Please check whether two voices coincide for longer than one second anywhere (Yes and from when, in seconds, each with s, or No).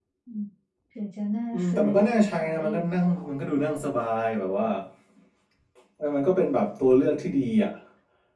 Yes, from 1.5 s